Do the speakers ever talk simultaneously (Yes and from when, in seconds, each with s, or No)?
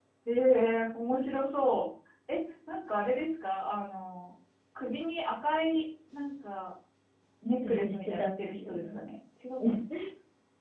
Yes, from 7.4 s